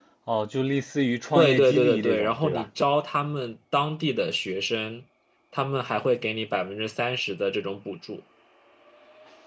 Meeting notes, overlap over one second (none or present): present